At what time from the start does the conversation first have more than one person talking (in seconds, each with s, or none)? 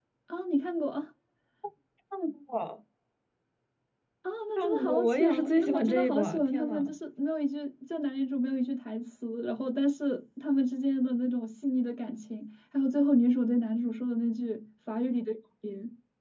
4.6 s